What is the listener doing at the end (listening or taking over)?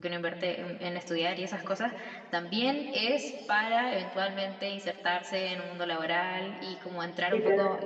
listening